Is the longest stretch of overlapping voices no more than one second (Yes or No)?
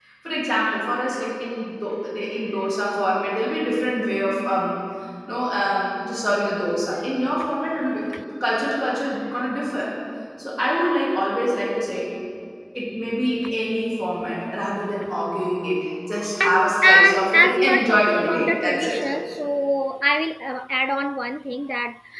No